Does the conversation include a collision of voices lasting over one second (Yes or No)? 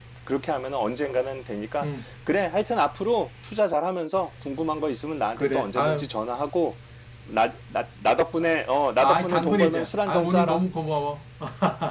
Yes